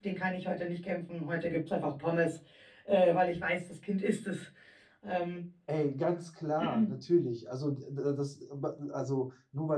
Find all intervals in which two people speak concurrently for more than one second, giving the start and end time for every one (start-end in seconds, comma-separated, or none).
none